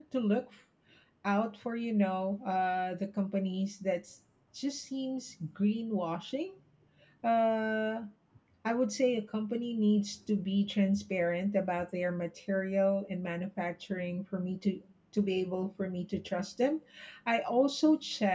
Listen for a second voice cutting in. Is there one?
No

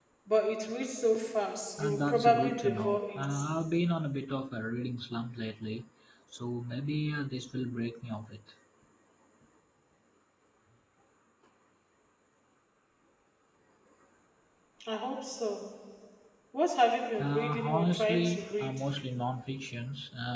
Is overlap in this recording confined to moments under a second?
No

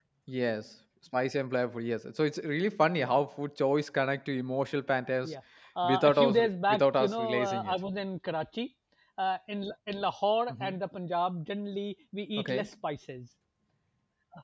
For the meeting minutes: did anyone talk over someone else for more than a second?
Yes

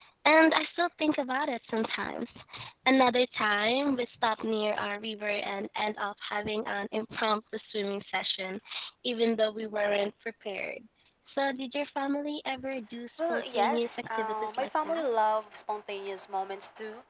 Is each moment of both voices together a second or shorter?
No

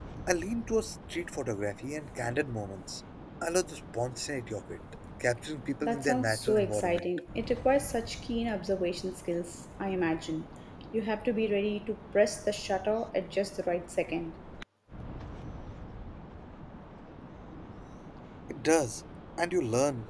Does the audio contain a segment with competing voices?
Yes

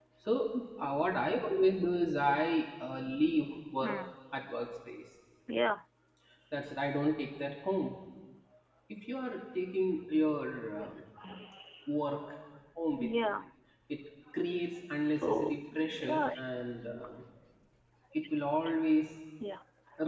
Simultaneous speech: Yes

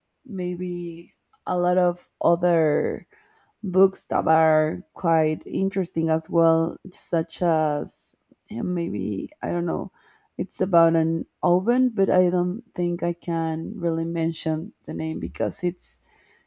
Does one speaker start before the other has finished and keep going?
No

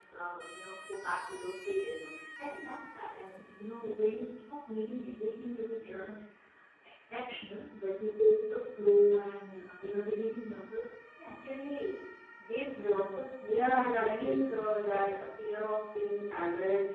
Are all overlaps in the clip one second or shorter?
No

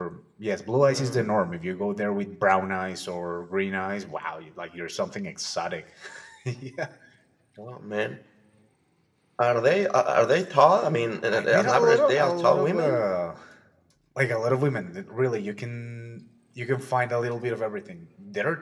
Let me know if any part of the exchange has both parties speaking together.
Yes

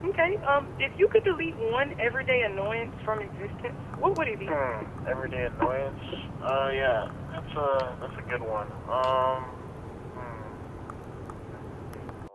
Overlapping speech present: No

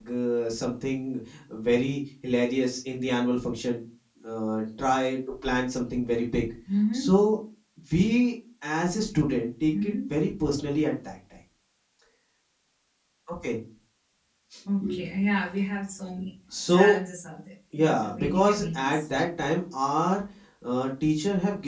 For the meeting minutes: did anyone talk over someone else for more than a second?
Yes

